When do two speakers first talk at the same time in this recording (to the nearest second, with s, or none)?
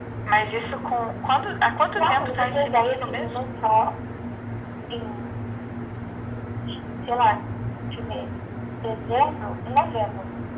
2 s